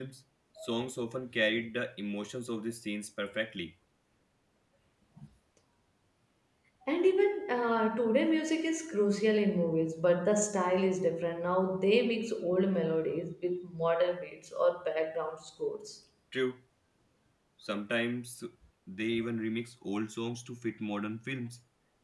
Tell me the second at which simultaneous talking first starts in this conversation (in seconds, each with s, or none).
none